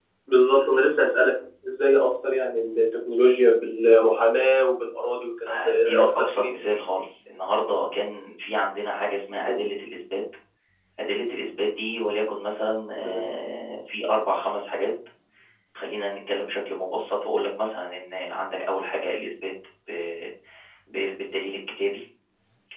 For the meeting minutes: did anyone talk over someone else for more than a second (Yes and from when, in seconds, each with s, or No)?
Yes, from 5.5 s